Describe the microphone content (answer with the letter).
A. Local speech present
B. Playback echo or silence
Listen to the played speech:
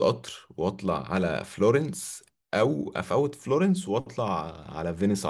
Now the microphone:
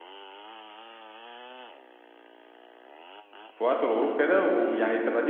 A